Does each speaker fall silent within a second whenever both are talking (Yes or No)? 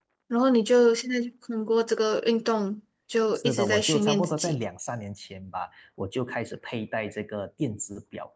No